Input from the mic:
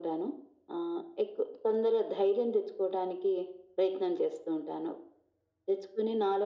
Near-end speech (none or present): none